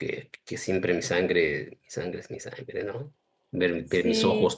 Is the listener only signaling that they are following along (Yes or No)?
Yes